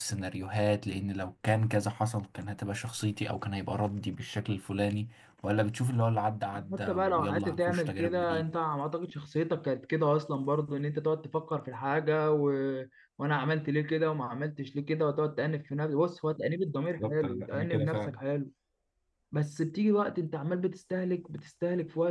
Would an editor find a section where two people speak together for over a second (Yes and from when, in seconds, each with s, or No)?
Yes, from 6.7 s